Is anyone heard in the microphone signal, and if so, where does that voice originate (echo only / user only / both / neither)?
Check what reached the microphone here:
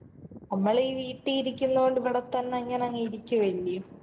user only